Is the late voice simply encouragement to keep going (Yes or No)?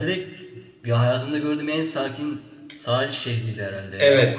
Yes